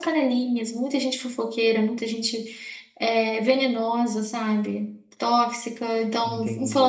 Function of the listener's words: listening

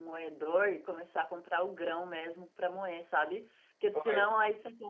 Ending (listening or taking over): listening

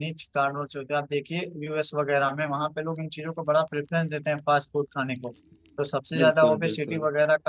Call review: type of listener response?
listening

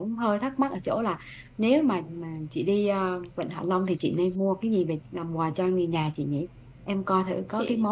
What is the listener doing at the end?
listening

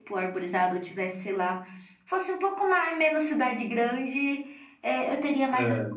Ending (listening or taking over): listening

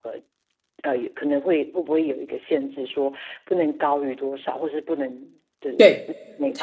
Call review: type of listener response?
taking over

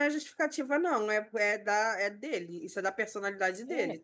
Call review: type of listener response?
taking over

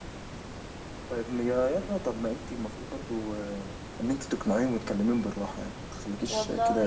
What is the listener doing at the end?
taking over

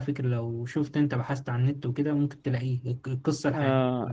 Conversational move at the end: taking over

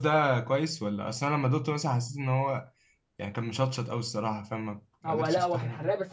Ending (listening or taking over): taking over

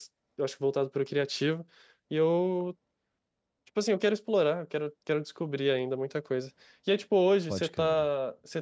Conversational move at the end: listening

